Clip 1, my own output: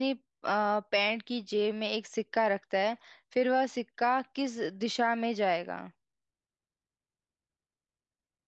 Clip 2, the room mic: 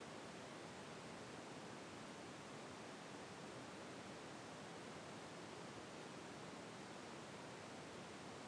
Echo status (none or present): none